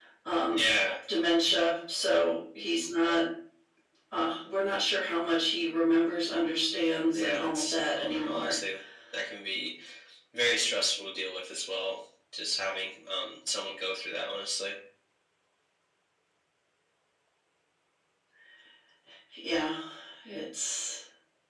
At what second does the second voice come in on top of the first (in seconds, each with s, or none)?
7.1 s